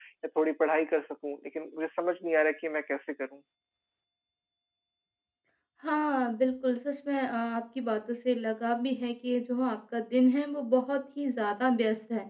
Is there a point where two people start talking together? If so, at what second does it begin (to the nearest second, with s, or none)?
none